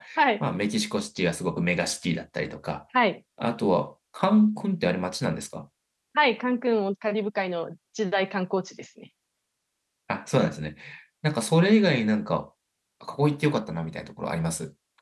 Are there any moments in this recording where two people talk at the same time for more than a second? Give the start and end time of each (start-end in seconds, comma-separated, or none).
none